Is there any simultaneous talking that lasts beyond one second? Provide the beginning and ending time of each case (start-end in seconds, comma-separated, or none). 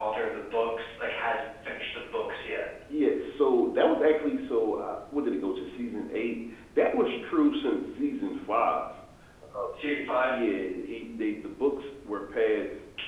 none